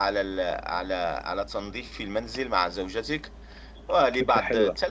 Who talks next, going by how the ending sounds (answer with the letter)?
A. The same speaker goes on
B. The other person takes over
A